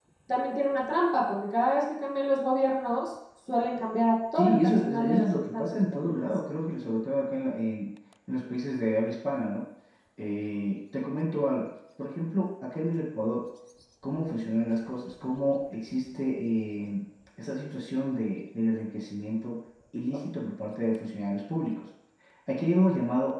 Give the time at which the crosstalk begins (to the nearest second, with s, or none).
4 s